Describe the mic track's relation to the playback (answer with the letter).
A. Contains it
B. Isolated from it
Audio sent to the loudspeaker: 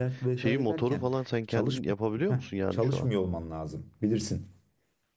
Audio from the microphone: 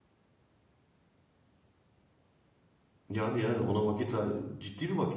B